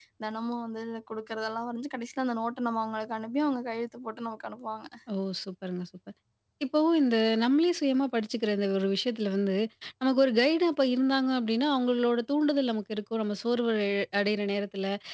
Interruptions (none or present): none